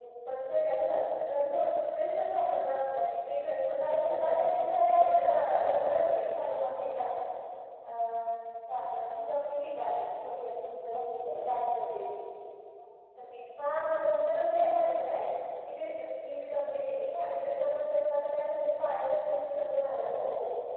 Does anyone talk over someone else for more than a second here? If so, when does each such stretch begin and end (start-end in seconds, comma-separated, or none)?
3.8-6.4